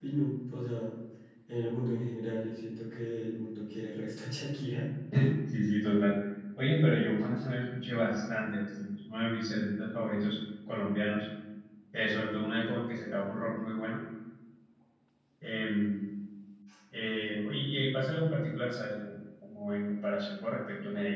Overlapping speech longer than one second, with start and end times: none

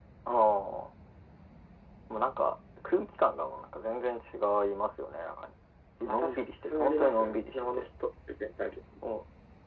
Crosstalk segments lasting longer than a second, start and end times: 6.1-7.9

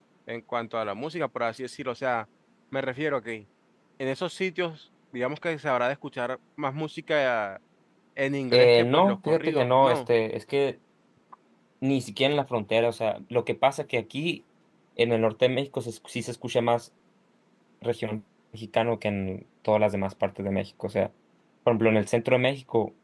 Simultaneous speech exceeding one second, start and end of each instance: 8.5-10.1

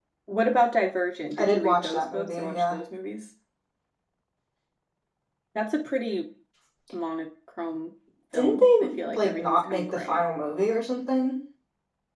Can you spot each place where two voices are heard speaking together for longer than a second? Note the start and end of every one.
1.4-2.8, 8.3-10.2

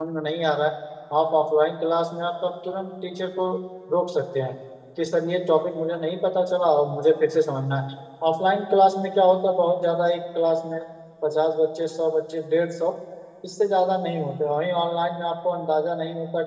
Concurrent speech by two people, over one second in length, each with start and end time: none

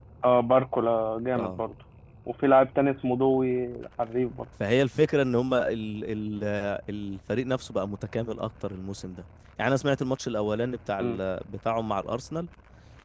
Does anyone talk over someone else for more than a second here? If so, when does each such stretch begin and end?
none

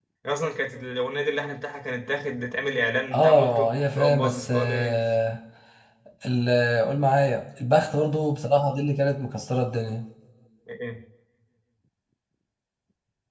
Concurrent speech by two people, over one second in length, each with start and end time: 3.1-5.0

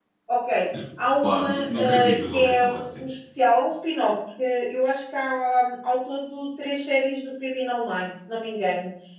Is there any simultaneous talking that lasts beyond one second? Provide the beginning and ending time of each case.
1.2-3.0

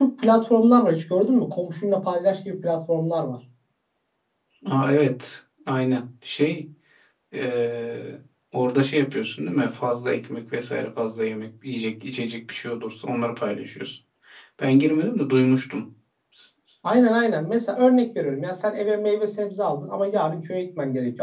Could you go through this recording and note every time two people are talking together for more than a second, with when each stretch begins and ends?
none

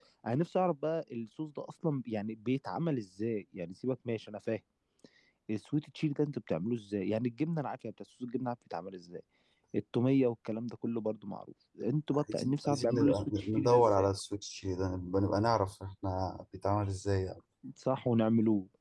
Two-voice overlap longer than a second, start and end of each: 12.1-14.1

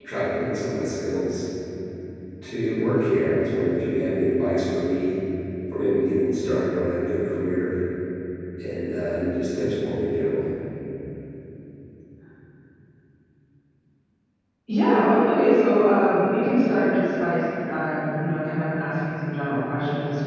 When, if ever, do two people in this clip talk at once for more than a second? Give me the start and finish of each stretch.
none

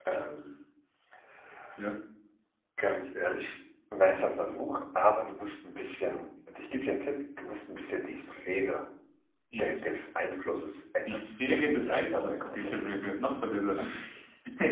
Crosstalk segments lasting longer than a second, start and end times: 11.1-12.8

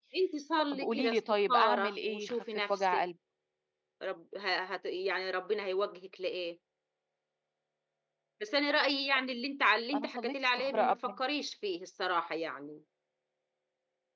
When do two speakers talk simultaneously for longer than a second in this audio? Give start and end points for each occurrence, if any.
0.7-3.0, 9.9-11.2

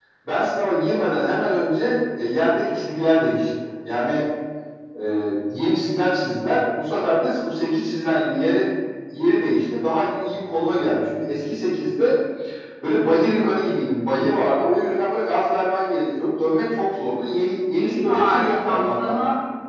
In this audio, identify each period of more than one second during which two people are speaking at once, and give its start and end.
17.7-19.2

